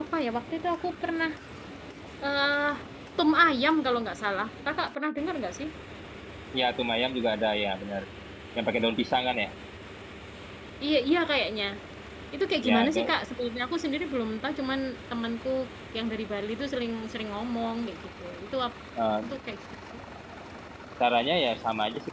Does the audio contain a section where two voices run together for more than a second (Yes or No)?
No